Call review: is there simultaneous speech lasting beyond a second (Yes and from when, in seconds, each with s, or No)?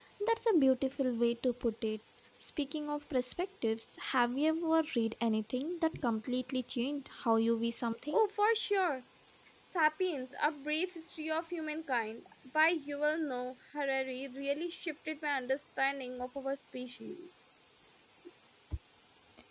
No